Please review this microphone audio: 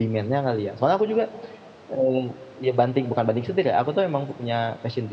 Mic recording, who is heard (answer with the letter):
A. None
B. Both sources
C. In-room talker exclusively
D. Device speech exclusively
C